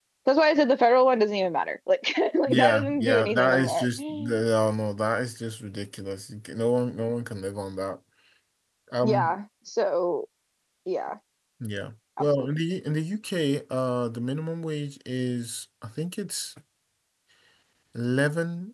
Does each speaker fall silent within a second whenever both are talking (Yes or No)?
No